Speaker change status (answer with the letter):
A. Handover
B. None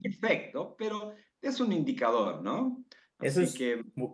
A